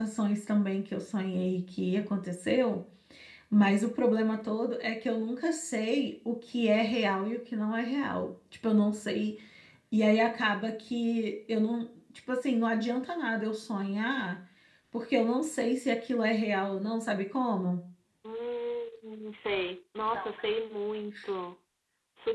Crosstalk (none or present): none